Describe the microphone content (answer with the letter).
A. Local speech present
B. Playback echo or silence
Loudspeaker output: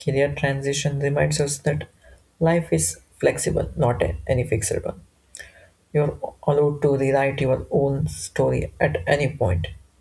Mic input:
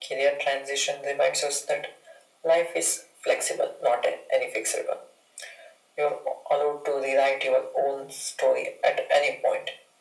B